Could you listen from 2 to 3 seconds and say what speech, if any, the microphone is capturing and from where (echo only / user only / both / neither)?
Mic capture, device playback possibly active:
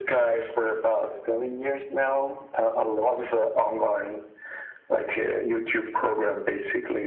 echo only